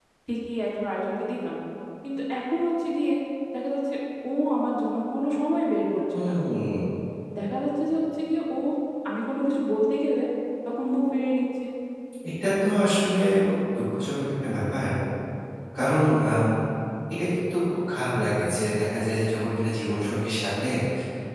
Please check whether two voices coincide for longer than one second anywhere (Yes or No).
No